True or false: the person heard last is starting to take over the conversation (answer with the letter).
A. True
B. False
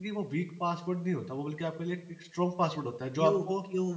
A